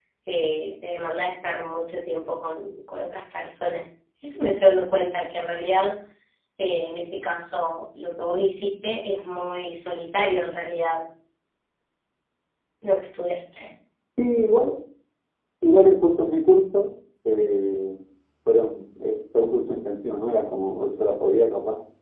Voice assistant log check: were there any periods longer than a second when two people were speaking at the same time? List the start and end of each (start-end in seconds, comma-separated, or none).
none